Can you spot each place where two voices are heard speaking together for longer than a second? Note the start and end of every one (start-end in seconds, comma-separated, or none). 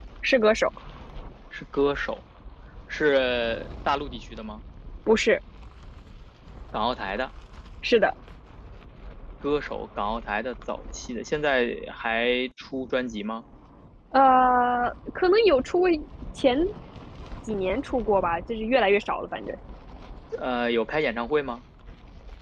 none